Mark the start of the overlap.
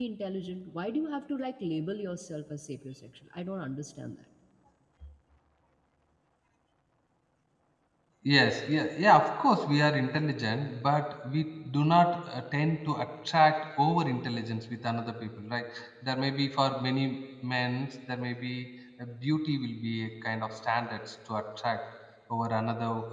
none

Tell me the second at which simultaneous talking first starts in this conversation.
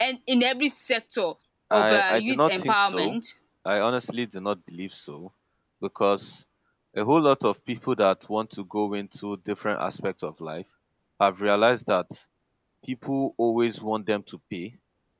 1.7 s

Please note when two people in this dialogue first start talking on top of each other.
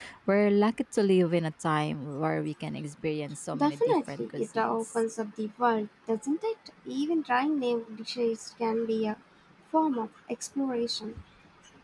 3.5 s

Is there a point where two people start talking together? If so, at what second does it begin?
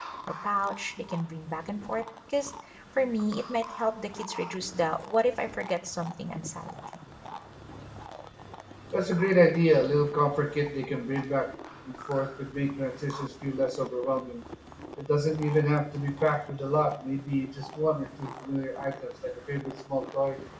none

